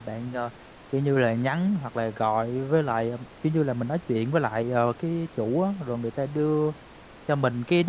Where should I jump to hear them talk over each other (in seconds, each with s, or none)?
none